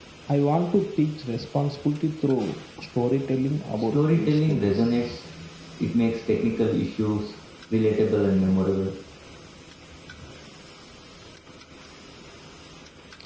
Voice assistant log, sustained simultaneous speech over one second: present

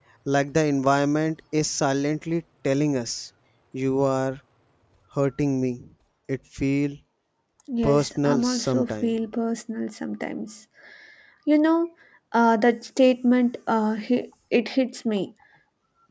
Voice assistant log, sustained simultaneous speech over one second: present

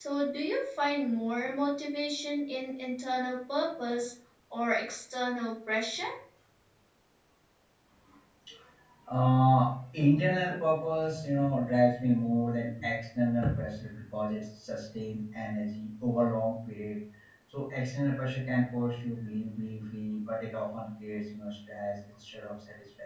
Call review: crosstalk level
none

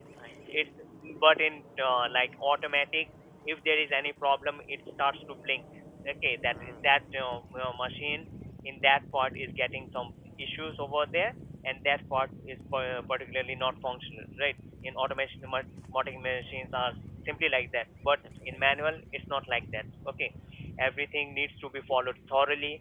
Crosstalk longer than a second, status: none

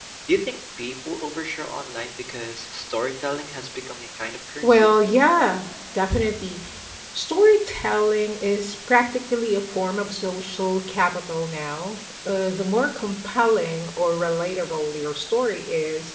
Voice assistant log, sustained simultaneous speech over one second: none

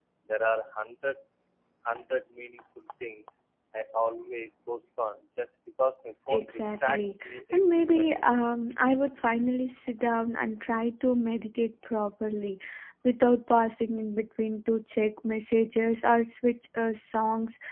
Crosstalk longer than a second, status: present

